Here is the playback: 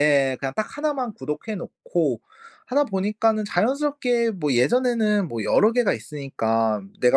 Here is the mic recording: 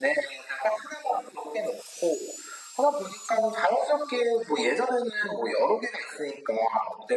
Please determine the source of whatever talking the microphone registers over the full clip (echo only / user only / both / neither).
echo only